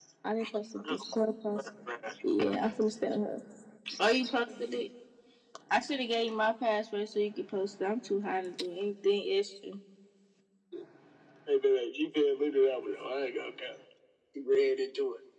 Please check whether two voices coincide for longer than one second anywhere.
No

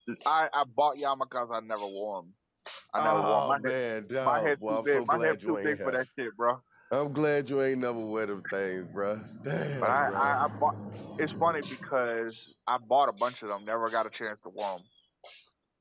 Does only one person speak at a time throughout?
No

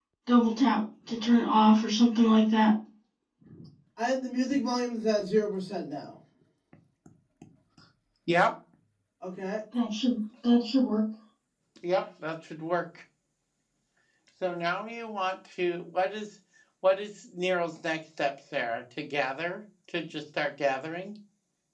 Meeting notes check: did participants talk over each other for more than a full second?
No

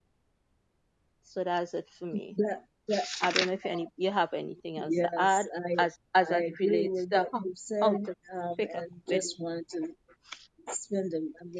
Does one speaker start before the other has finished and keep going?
Yes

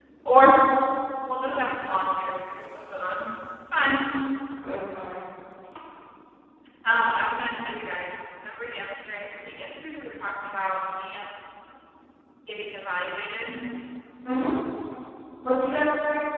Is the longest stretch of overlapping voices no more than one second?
Yes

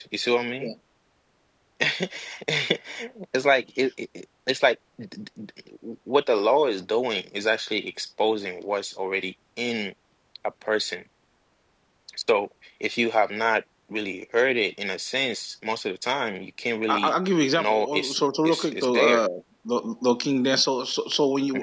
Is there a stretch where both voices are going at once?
Yes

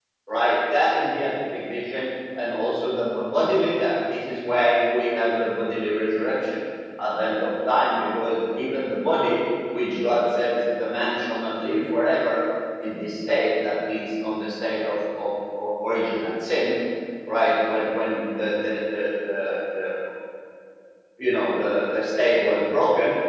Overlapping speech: No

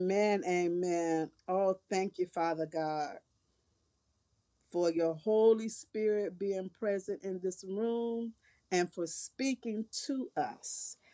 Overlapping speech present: No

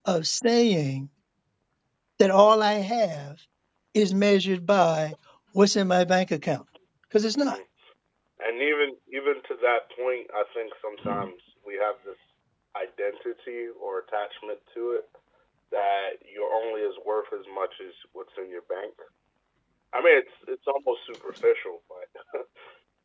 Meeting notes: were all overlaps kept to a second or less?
Yes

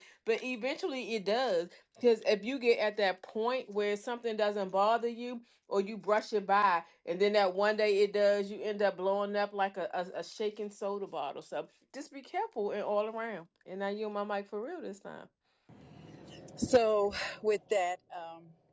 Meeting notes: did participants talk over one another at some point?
No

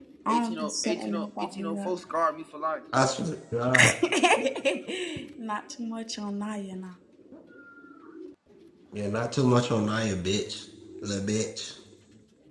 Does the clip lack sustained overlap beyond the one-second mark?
No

